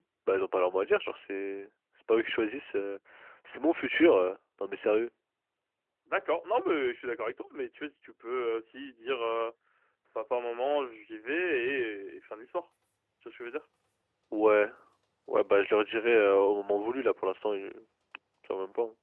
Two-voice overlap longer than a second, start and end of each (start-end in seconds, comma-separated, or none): none